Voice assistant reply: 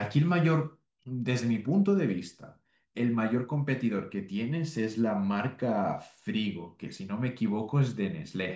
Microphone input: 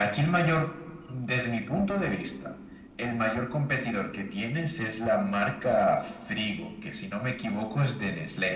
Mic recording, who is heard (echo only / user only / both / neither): echo only